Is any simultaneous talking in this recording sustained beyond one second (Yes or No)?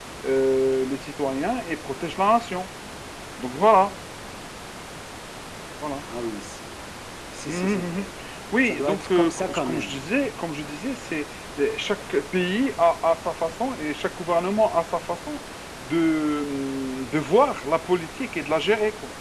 Yes